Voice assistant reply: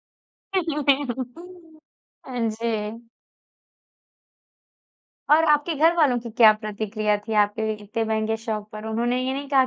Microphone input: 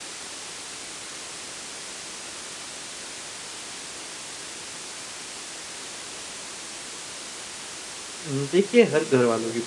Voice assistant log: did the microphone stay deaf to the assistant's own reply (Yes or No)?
Yes